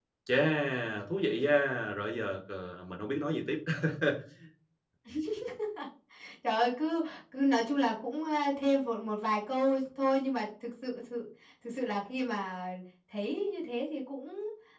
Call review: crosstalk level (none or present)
none